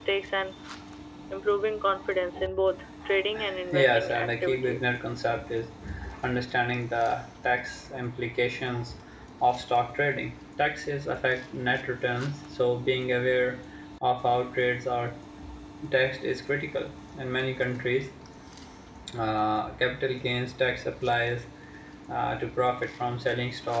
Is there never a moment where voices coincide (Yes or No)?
No